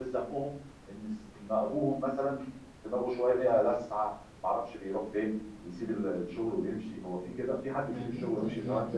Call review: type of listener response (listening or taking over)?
taking over